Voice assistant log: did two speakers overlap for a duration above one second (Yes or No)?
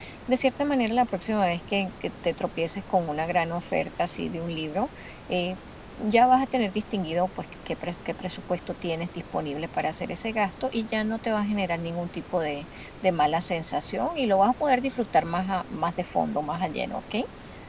No